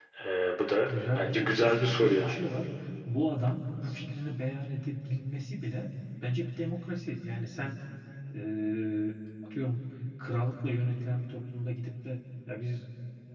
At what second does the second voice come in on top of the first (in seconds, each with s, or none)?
0.9 s